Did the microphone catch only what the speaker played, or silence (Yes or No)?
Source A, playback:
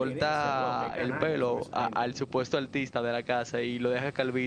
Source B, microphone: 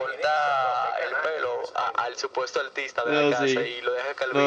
No